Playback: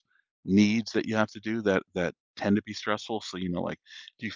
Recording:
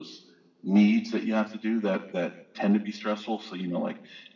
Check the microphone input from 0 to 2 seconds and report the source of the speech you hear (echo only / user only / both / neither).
echo only